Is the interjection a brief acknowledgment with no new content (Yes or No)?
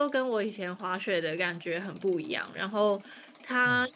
Yes